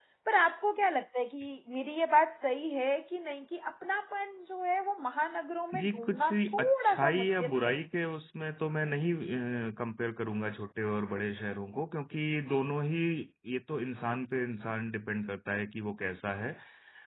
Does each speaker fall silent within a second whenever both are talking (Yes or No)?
No